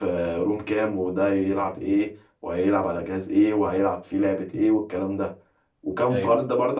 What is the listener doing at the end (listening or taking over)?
listening